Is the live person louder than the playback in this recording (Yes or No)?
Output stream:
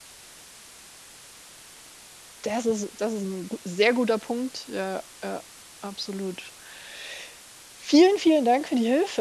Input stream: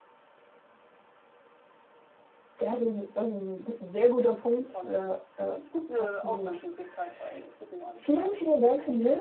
No